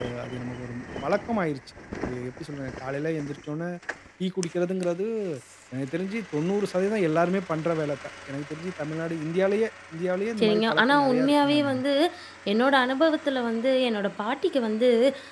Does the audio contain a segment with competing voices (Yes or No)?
Yes